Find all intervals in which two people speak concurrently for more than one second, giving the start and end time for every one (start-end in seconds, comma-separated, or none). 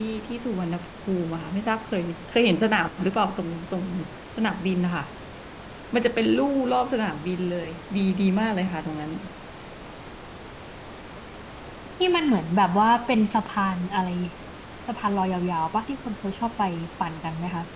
none